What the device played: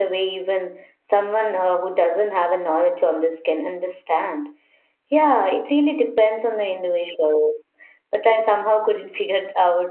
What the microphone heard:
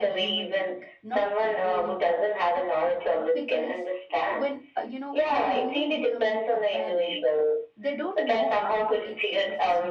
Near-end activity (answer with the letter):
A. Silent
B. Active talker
B